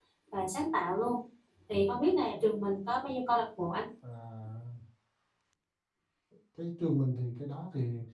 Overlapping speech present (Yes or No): No